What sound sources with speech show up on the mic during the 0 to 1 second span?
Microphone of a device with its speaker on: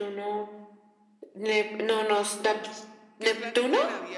echo only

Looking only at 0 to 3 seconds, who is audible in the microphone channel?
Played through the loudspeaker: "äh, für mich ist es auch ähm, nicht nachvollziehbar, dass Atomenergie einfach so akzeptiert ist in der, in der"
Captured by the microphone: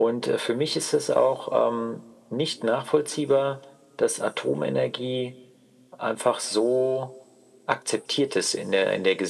echo only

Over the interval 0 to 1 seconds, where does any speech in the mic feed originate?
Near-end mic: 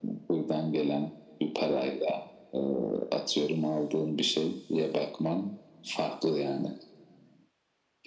echo only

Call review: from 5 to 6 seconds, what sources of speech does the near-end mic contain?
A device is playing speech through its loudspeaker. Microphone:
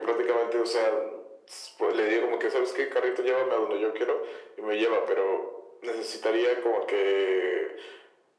echo only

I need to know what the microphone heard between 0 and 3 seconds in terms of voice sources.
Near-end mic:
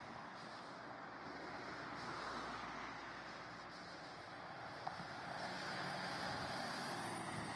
neither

